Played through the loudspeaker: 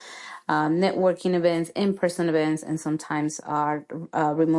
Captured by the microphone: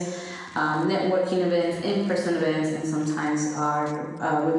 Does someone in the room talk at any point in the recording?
No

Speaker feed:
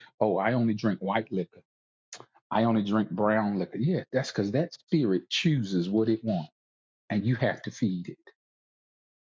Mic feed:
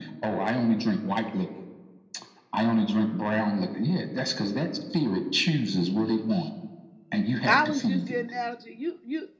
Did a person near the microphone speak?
Yes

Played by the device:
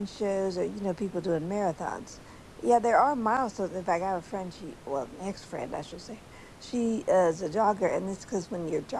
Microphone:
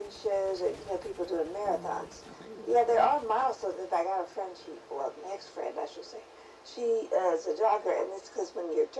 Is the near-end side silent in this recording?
No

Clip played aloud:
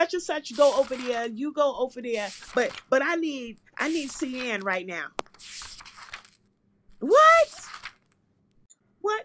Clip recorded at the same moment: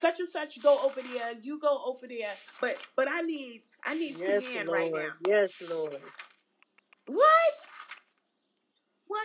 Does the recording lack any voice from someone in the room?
No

